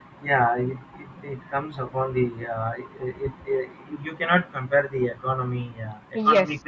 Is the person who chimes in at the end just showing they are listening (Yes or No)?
Yes